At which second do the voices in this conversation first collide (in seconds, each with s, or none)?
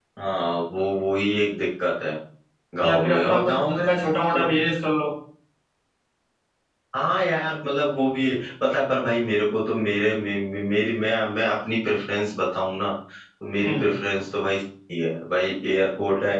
2.8 s